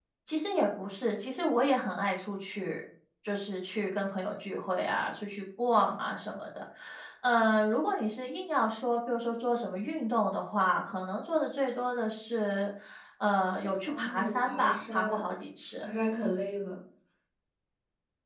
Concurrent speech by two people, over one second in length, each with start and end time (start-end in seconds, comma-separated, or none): 13.9-15.2